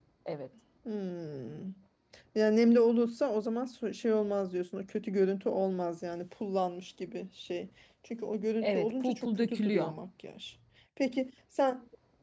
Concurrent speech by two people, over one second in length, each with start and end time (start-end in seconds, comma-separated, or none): 8.6-9.9